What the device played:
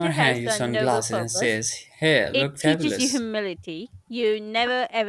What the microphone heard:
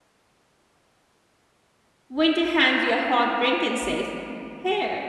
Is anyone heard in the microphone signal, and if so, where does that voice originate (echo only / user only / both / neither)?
user only